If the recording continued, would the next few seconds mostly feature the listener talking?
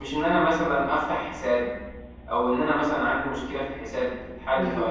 Yes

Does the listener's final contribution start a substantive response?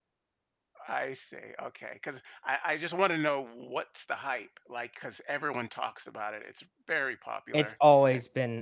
Yes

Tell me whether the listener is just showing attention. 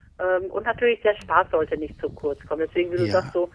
Yes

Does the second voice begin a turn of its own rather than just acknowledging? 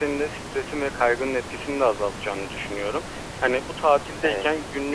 No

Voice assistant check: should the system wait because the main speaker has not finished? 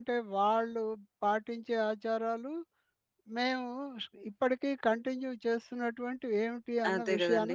No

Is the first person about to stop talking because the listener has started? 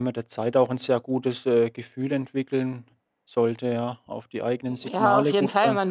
Yes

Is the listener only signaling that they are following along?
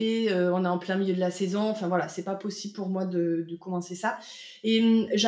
Yes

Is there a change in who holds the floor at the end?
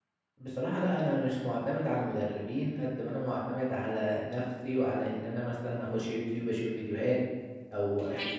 No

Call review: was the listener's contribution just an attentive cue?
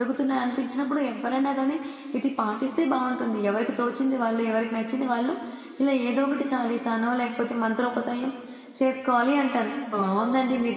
Yes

